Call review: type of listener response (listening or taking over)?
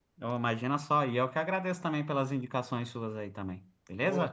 taking over